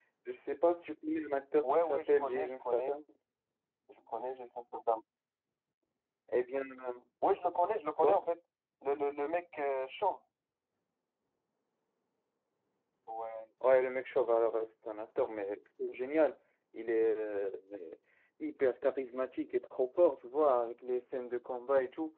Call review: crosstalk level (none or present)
present